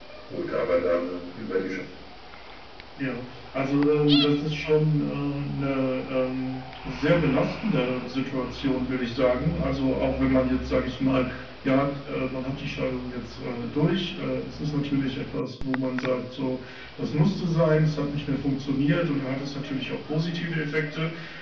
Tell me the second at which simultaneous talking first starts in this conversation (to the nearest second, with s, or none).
none